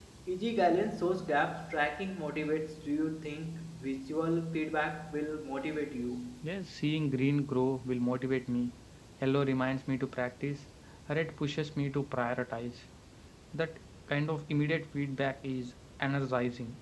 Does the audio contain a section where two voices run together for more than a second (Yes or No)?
No